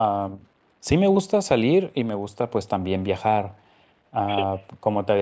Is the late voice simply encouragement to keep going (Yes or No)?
Yes